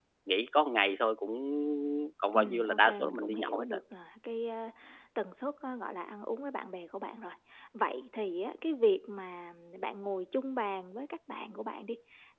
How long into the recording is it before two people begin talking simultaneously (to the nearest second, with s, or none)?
2 s